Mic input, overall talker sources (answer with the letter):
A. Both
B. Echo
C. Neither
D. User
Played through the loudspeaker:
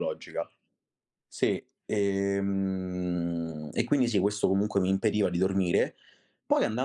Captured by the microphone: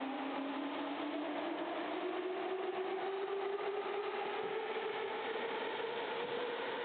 C